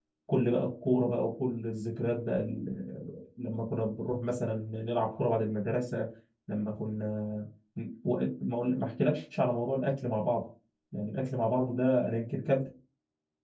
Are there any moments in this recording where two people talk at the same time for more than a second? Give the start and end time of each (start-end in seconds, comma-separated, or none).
none